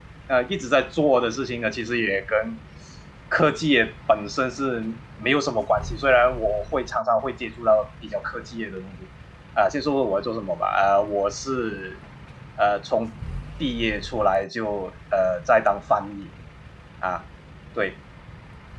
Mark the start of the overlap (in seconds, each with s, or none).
none